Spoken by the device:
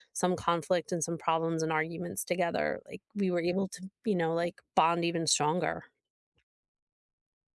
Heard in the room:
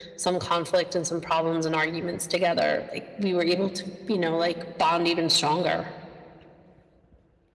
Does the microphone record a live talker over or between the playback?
No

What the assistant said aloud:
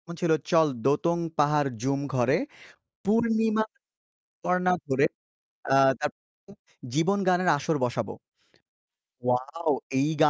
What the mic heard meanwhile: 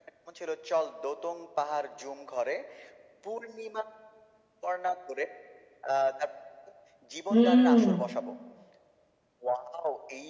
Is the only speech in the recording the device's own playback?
No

